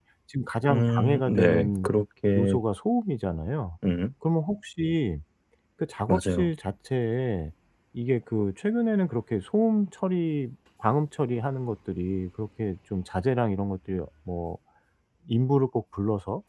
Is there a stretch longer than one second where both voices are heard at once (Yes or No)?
Yes